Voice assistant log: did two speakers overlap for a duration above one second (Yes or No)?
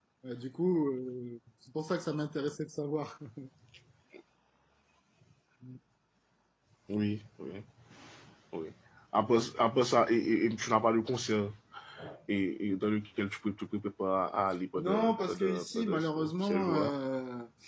Yes